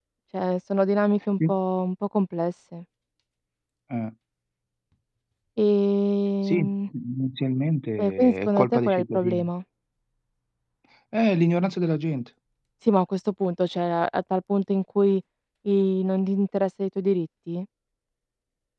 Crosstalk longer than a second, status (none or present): present